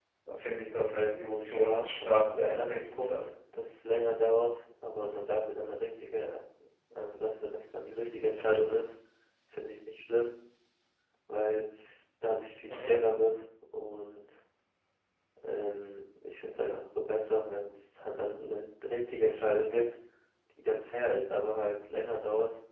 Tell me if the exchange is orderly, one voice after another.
No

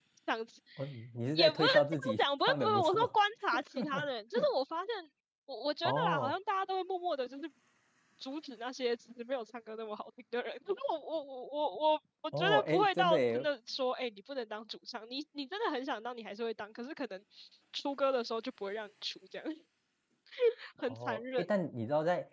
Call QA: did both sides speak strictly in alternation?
No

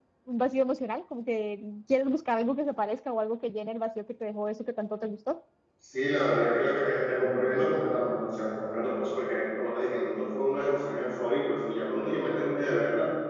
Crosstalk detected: No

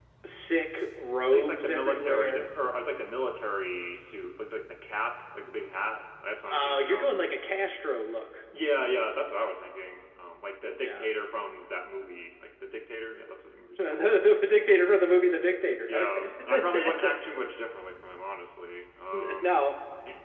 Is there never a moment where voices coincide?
No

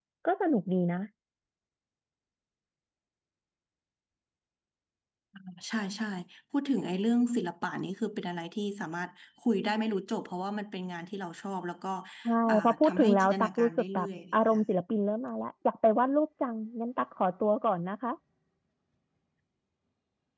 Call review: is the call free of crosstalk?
No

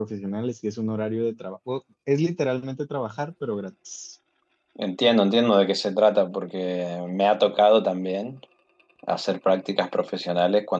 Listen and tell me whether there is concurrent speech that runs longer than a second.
No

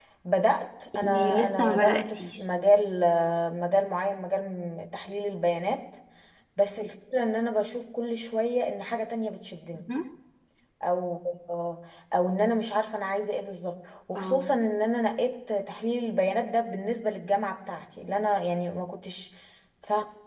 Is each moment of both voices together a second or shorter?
No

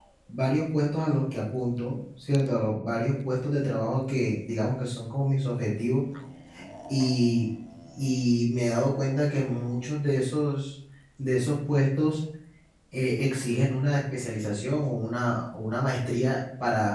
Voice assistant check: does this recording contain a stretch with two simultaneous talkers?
No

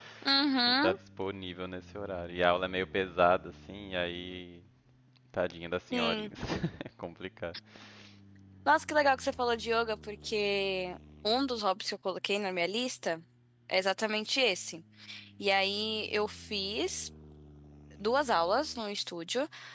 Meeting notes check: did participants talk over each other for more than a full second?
No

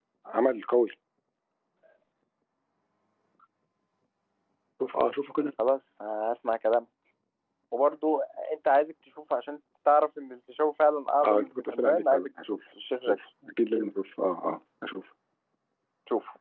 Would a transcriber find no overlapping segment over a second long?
No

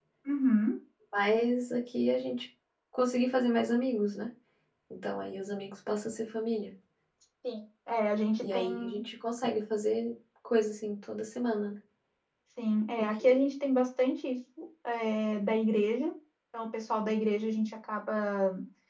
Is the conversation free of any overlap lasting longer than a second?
Yes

